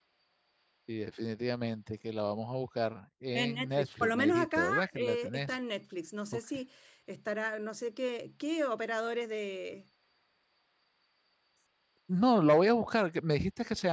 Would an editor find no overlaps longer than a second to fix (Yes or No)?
No